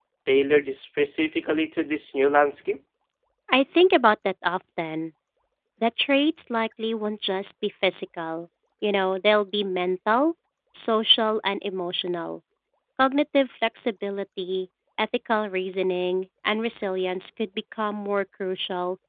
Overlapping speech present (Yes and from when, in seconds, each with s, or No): No